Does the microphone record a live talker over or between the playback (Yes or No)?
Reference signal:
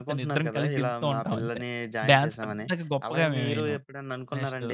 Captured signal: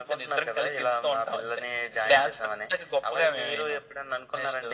No